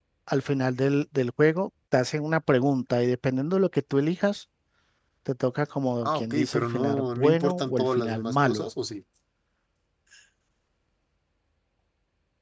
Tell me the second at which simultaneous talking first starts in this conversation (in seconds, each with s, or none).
6.0 s